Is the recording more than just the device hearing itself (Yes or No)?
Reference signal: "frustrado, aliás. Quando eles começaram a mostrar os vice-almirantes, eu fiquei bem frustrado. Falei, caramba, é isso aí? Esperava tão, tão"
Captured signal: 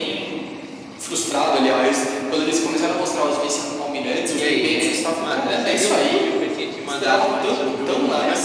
Yes